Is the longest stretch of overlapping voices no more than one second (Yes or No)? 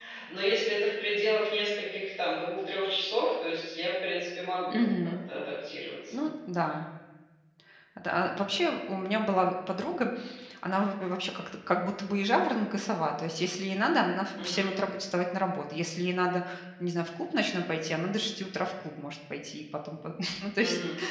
Yes